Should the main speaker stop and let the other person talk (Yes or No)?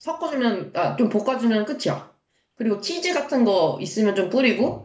No